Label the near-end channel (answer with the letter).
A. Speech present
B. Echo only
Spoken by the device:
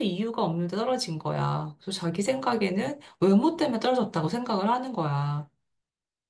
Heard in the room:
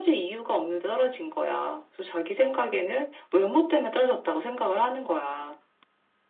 B